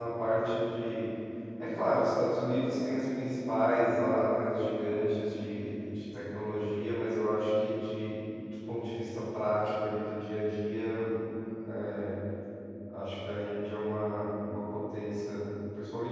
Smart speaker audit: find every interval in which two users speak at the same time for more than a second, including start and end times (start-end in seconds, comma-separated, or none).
none